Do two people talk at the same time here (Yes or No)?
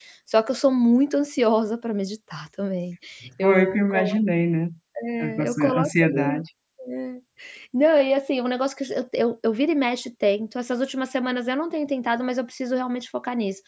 Yes